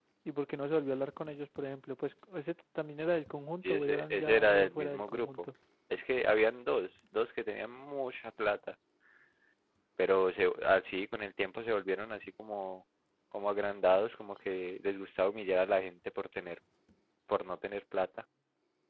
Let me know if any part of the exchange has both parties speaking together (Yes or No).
Yes